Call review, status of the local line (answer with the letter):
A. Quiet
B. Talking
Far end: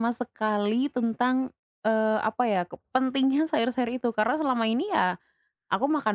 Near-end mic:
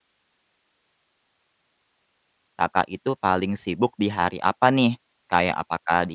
B